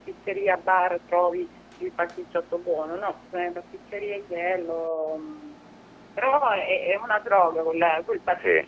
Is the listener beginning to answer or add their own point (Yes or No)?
Yes